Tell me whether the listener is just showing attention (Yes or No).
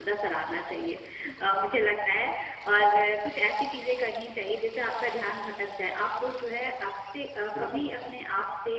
Yes